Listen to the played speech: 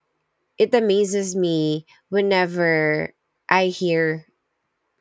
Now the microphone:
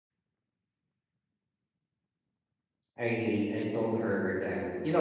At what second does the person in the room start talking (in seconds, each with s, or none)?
2.9 s